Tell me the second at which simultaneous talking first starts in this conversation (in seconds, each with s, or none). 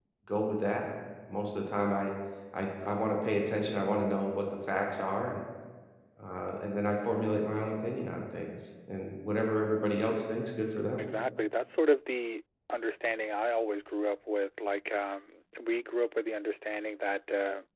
none